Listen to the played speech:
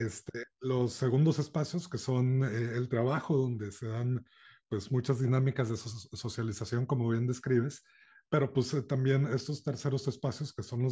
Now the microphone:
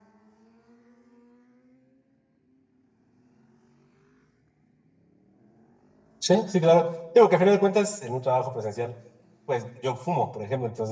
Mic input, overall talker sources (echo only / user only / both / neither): user only